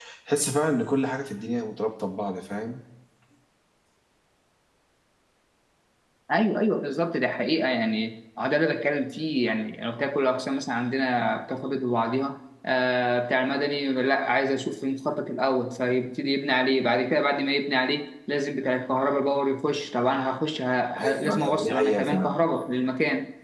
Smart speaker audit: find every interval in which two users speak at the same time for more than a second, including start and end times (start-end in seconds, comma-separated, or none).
21.0-22.4